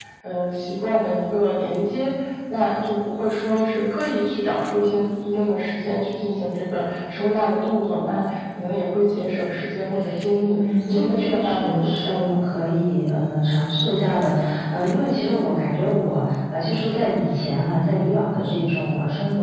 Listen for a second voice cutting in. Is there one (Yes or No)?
Yes